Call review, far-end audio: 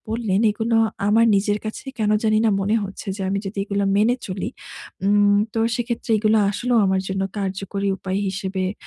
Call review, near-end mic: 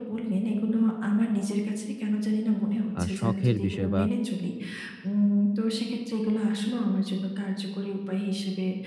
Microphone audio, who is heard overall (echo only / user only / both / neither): both